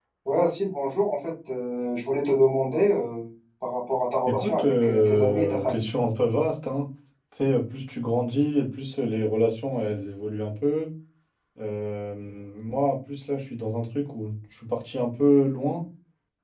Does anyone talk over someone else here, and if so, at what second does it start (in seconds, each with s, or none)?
4.3 s